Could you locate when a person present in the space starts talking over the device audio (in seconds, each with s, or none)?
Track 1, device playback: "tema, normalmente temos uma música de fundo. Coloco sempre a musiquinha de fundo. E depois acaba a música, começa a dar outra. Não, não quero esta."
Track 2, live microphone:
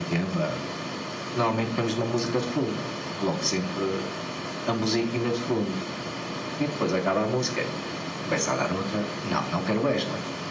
none